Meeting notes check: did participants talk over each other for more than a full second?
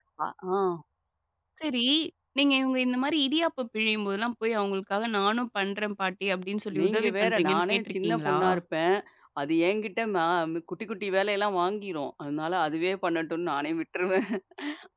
Yes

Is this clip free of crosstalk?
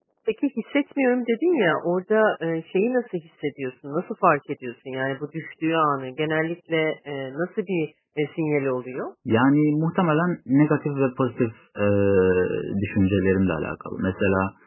Yes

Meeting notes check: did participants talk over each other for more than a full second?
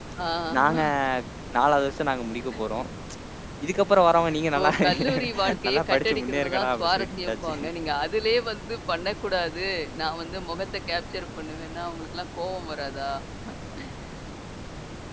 Yes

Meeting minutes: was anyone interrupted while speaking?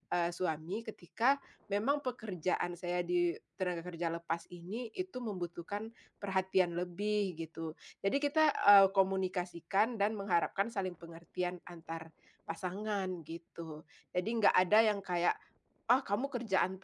No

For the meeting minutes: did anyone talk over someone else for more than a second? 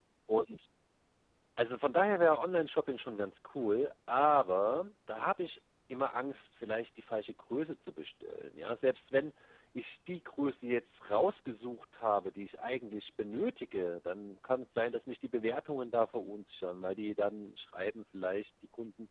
No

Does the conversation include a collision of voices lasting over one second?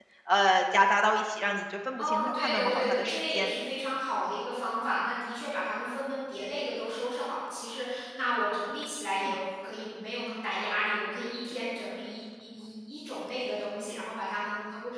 Yes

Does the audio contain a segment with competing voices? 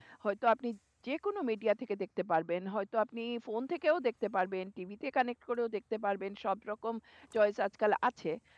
No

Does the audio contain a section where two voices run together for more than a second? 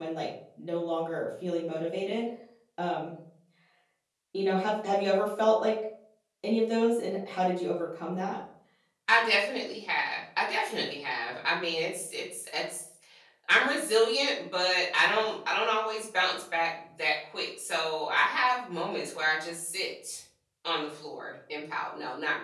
No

